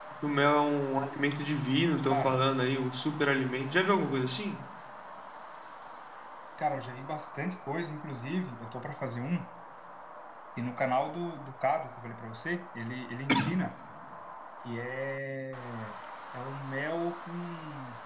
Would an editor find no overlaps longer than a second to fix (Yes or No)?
Yes